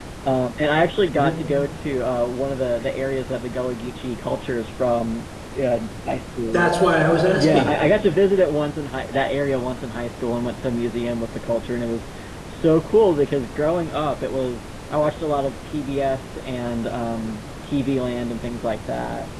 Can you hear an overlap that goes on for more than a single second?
No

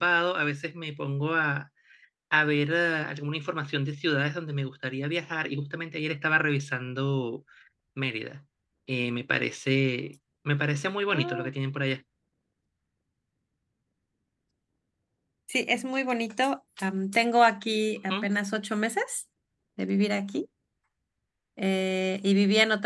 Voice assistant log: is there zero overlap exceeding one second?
Yes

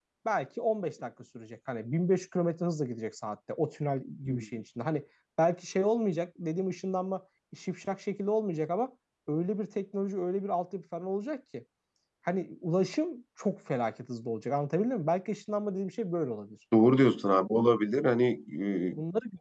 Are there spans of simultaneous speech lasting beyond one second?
No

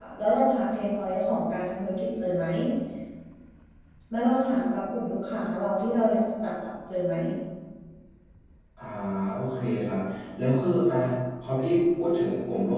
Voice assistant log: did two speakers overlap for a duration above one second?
No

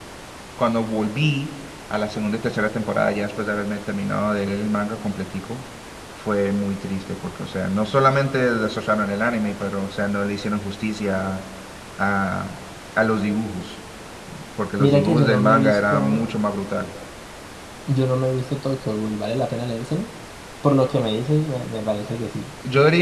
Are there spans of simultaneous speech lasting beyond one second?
Yes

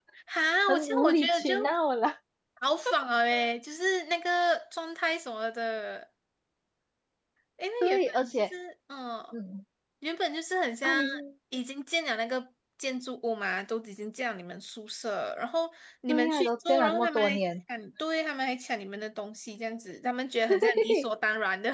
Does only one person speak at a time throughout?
No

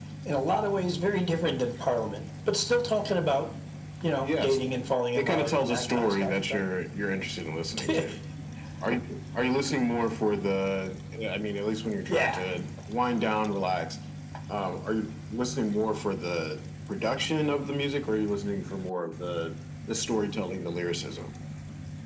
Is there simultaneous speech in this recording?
Yes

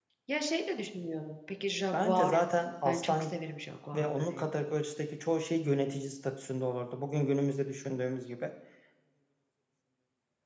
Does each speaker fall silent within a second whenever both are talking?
Yes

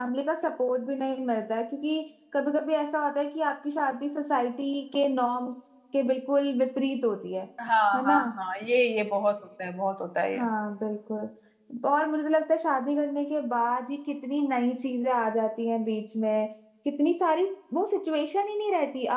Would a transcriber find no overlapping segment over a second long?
Yes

